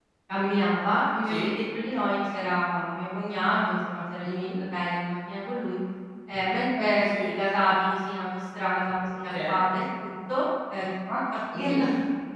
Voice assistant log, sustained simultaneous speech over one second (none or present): none